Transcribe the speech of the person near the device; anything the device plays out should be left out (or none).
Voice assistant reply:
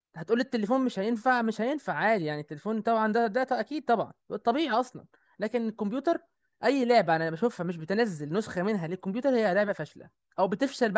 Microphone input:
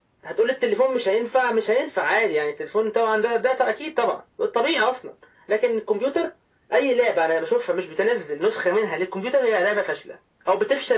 none